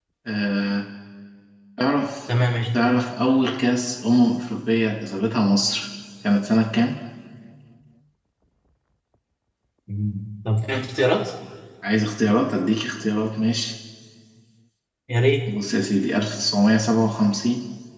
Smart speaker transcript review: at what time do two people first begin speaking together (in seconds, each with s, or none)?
none